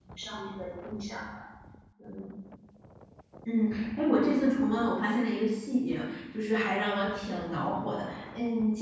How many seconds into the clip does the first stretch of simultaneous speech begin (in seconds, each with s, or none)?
none